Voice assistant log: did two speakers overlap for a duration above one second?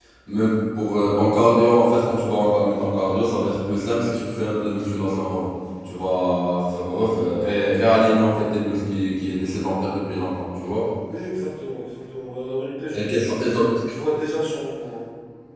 No

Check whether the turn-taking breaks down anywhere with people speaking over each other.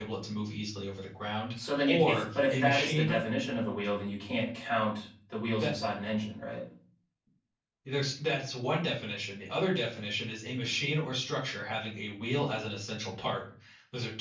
Yes, from 1.6 s

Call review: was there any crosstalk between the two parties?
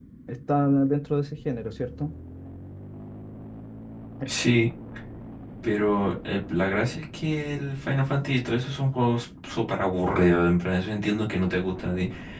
No

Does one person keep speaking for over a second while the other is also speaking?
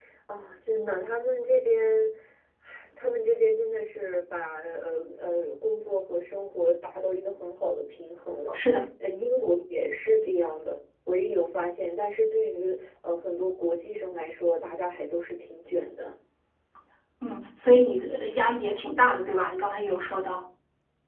No

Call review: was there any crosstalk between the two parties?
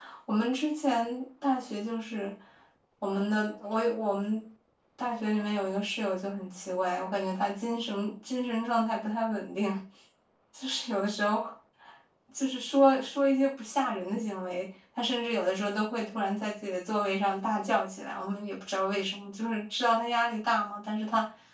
No

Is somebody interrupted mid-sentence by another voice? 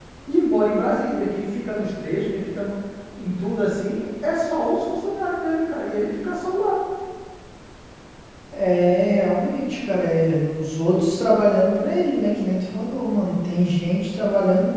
No

